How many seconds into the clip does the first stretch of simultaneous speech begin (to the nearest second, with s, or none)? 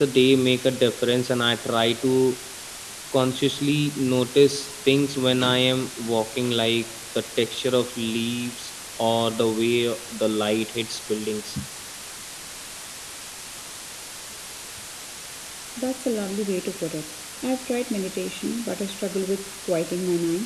none